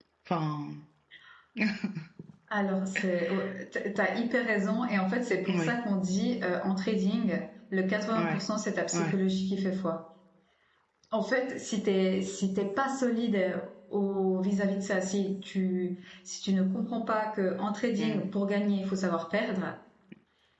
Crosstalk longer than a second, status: none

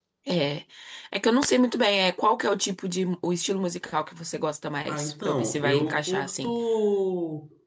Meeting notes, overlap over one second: present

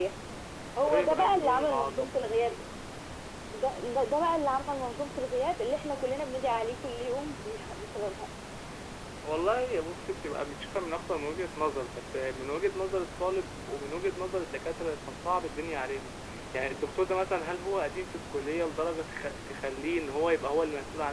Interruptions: present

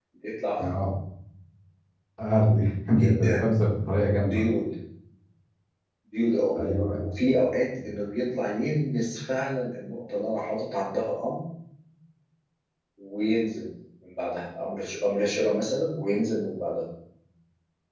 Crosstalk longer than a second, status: none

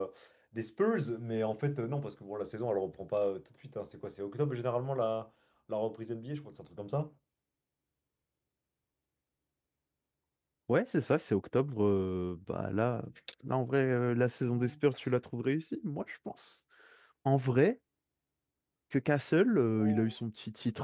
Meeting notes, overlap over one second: none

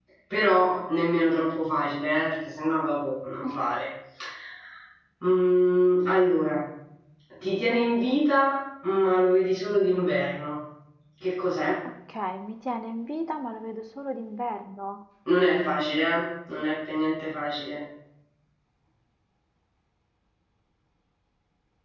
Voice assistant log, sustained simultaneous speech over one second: none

